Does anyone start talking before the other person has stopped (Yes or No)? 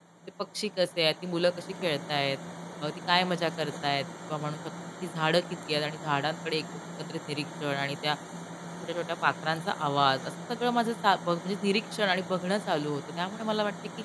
No